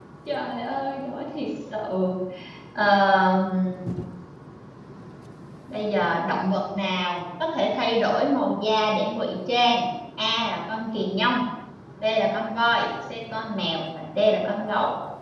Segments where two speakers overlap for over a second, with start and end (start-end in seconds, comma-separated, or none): none